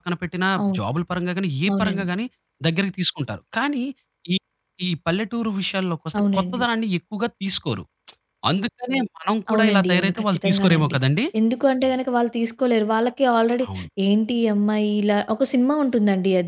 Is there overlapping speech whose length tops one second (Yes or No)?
Yes